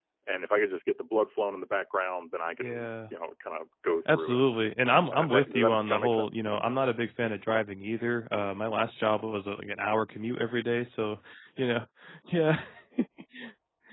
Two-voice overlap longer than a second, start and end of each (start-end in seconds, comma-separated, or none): 5.1-6.4